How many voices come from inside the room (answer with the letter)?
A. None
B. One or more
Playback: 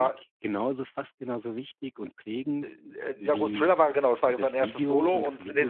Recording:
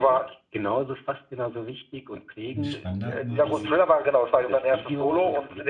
B